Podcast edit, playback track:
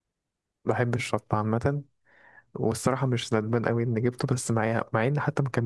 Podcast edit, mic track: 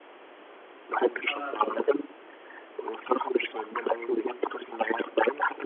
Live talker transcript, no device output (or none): انا اكلها